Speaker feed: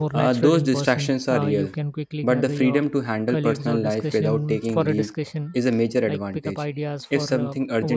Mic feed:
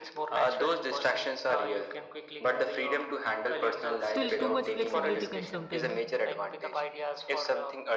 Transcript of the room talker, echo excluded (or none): Still, too much flexibility can sometimes